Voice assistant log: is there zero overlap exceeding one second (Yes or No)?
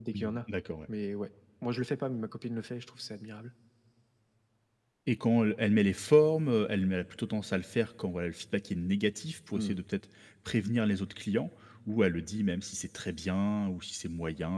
Yes